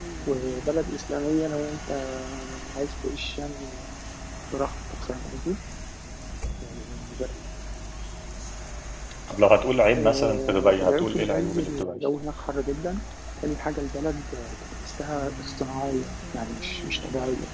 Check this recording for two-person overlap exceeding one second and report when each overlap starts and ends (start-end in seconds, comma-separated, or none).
10.0-12.0